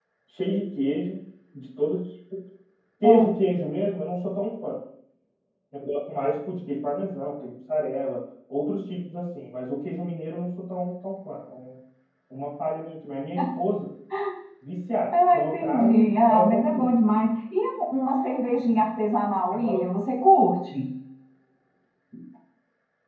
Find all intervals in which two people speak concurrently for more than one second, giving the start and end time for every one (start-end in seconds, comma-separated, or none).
15.1-16.9